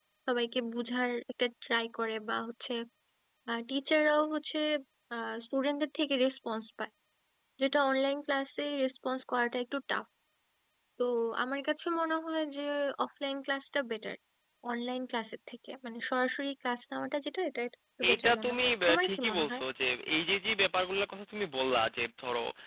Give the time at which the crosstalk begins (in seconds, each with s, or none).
18.0 s